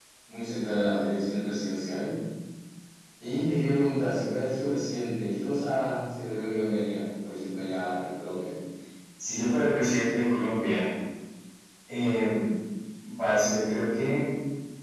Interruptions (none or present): none